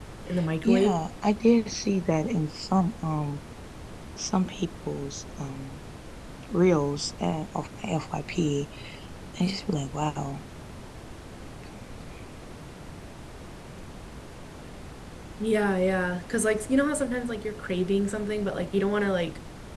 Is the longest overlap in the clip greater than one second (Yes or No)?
No